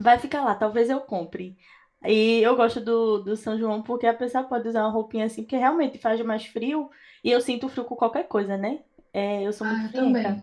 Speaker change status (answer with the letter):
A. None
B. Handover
B